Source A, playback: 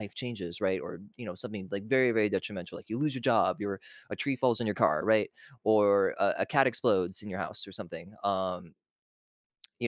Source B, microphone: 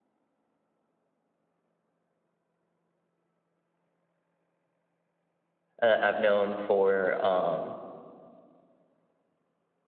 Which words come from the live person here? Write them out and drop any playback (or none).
uh, I've known for um